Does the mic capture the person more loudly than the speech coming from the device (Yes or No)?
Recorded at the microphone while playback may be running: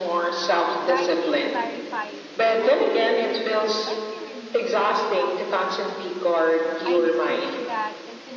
No